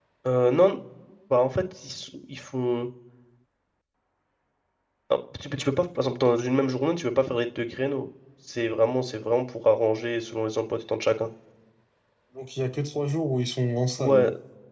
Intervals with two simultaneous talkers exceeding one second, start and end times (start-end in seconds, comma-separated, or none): none